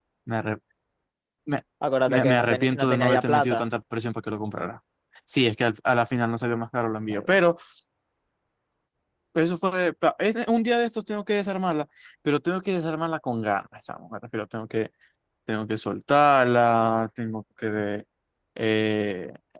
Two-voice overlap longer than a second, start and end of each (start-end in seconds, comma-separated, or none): 2.1-3.7